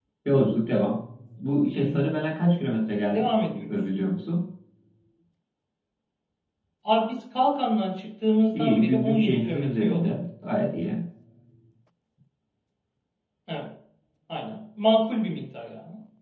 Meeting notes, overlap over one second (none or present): present